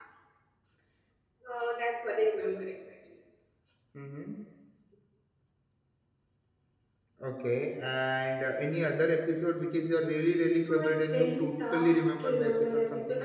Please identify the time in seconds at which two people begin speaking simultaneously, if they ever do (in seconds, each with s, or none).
10.6 s